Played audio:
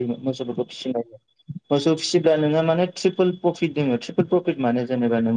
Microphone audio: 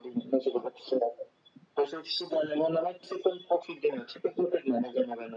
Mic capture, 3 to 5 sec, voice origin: echo only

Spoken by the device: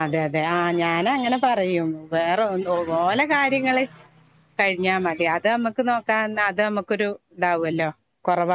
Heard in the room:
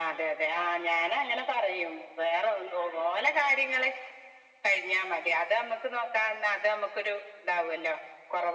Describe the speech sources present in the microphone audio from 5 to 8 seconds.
echo only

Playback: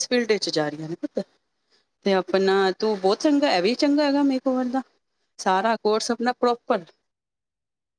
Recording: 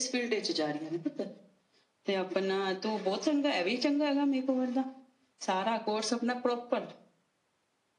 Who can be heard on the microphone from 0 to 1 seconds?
echo only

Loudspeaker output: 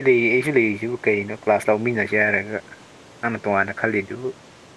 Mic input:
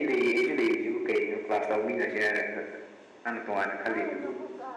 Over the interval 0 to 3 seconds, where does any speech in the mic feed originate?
echo only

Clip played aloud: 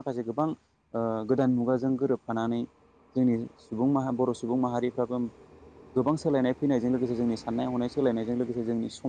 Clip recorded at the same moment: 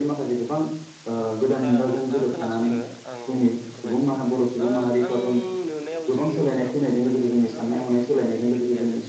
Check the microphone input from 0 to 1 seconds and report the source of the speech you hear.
echo only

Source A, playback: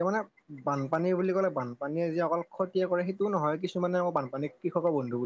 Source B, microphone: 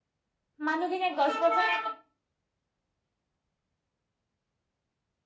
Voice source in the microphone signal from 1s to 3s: user only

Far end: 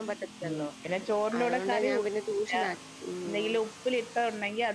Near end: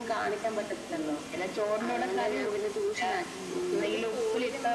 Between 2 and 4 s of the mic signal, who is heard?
both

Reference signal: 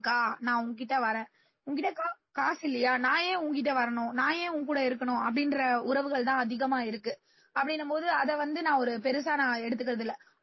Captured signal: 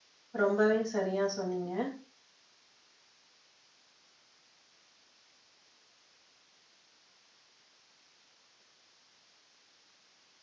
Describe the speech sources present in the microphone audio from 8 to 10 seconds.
neither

